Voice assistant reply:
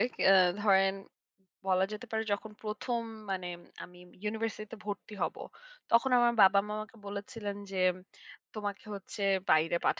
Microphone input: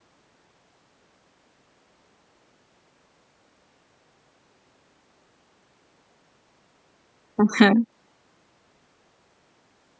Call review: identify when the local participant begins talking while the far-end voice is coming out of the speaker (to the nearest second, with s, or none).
7 s